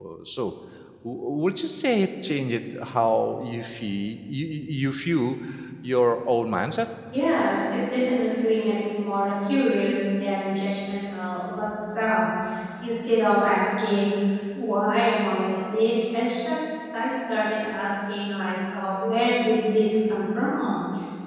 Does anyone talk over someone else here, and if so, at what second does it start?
none

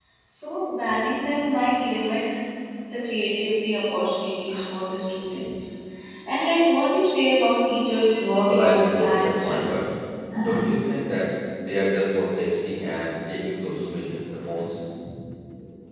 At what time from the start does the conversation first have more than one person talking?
8.4 s

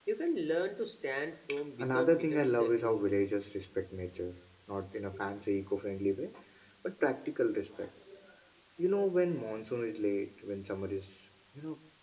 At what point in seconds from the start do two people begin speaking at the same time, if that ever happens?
1.8 s

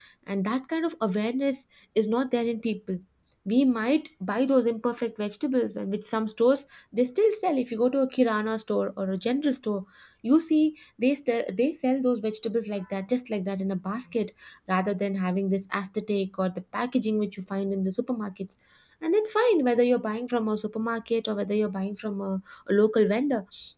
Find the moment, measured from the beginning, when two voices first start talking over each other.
none

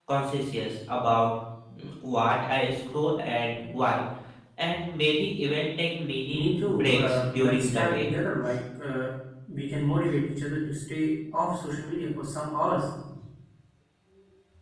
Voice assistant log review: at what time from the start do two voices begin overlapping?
6.3 s

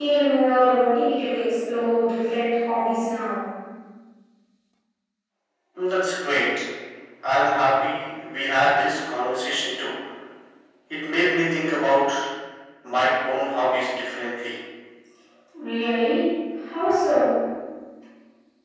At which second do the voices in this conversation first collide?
none

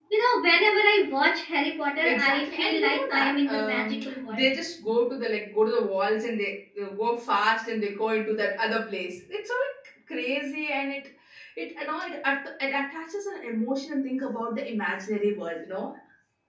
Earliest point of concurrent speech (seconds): 2.0 s

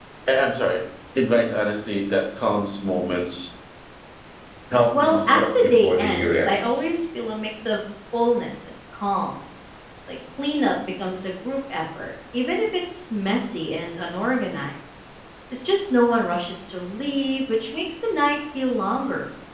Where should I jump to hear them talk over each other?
4.9 s

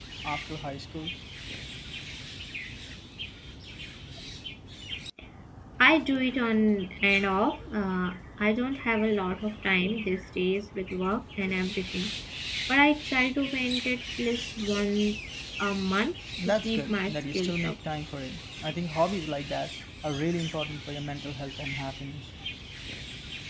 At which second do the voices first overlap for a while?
16.4 s

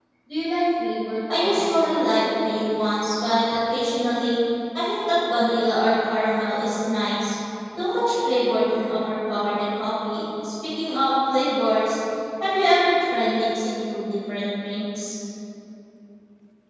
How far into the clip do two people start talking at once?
1.3 s

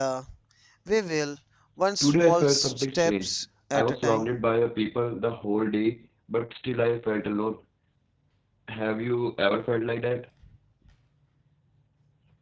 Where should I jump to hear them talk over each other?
2.0 s

